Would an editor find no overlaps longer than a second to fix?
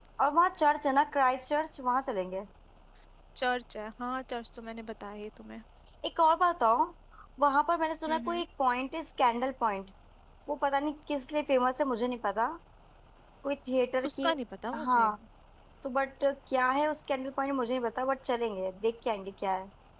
Yes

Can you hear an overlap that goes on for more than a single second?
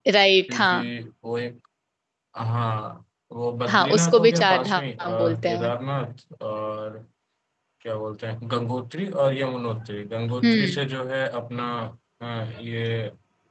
Yes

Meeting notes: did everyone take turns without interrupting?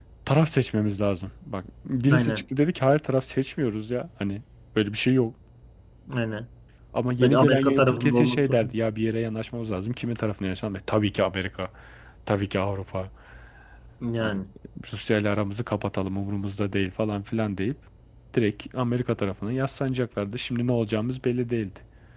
No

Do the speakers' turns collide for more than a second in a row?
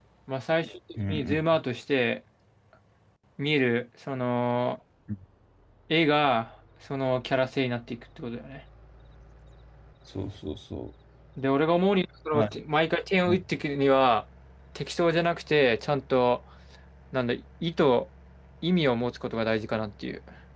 No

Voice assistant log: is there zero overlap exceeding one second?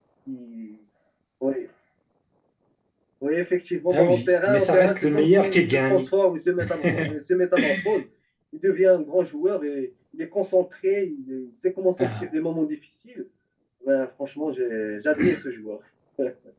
No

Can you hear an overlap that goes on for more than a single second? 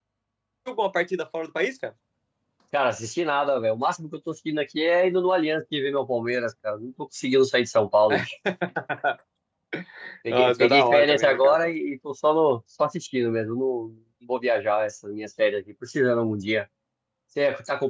Yes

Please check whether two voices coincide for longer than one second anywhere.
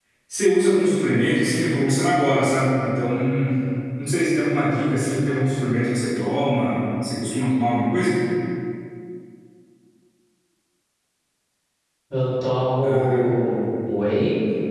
No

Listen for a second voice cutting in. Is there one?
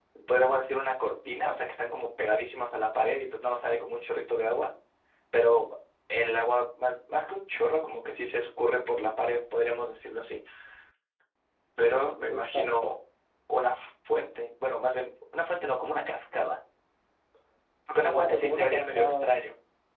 Yes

